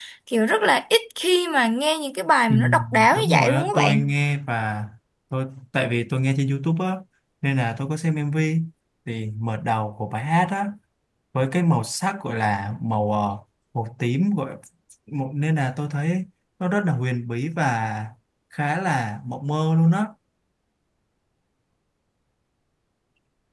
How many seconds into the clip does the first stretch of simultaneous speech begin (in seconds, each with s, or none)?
2.5 s